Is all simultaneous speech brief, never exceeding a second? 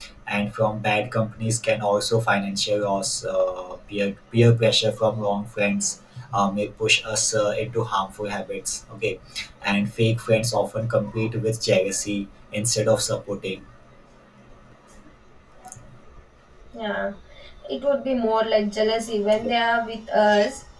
Yes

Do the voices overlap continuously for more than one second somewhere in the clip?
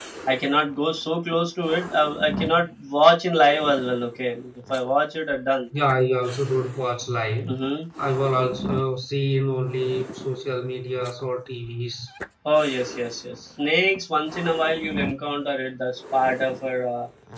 No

